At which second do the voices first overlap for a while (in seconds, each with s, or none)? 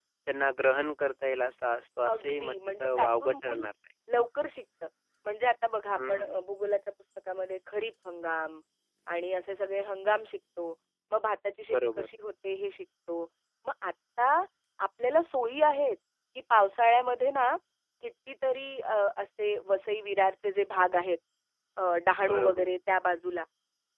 2.0 s